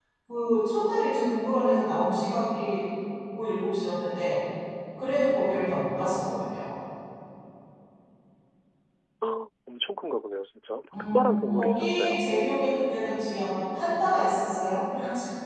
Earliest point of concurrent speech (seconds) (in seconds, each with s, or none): 10.9 s